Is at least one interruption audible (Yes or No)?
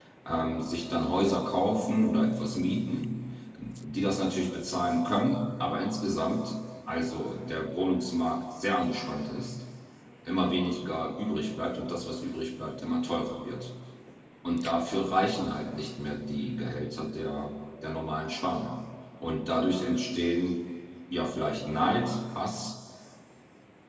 No